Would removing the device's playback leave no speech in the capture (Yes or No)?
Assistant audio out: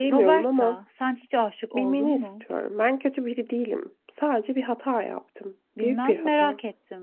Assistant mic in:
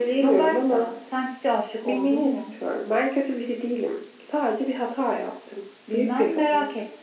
Yes